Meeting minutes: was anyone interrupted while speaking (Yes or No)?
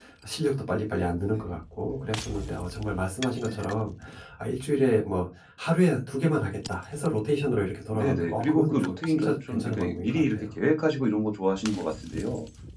Yes